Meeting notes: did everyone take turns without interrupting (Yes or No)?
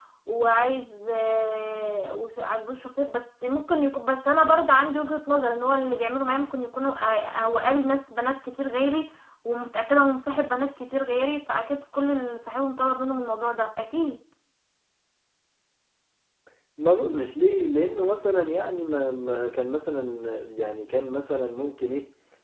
Yes